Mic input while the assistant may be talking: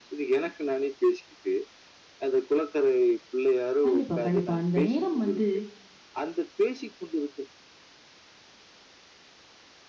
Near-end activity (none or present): present